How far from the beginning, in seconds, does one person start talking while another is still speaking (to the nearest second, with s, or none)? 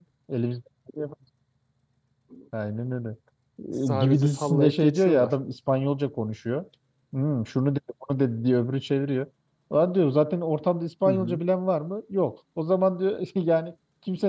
4 s